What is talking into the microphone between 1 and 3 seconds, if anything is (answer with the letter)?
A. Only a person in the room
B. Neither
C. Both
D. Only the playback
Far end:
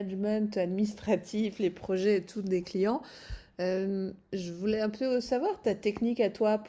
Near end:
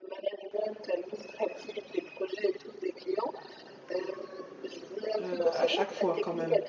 D